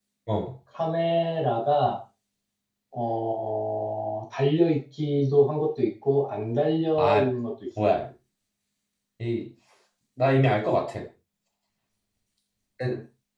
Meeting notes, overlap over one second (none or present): none